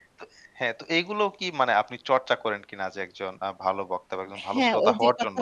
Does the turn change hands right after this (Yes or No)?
Yes